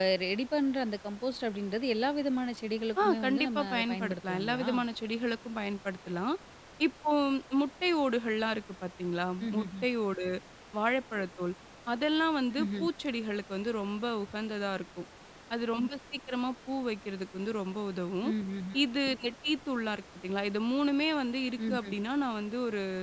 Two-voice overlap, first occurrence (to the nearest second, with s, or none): 3 s